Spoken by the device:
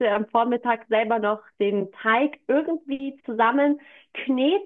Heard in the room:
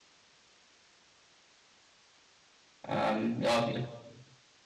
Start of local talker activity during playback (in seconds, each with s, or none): 2.8 s